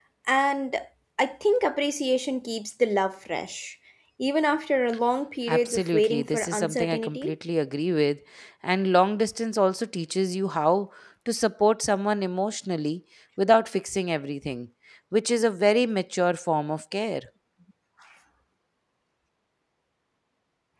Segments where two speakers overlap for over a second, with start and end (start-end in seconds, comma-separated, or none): 5.5-7.3